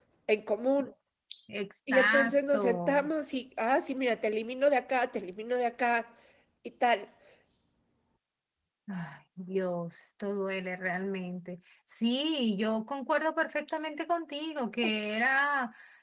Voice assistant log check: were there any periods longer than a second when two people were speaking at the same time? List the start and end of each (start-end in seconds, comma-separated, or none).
1.9-3.1